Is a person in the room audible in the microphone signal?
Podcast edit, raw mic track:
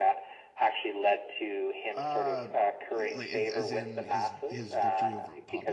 Yes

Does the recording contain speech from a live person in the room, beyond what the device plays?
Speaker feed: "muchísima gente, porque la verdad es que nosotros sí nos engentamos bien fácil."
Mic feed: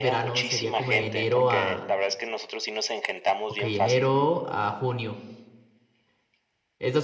Yes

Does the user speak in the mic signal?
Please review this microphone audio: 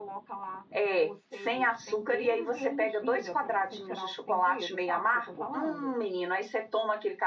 Yes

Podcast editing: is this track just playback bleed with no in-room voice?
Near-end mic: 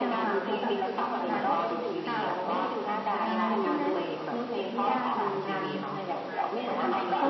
No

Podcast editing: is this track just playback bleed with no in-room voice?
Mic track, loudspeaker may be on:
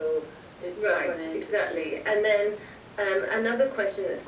Yes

